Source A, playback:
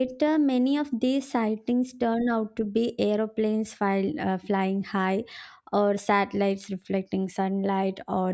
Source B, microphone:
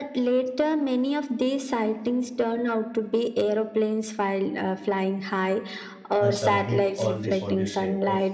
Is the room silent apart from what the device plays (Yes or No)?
No